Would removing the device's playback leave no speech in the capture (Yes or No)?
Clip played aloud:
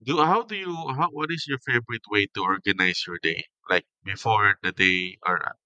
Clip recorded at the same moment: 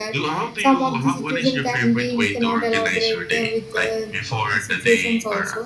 No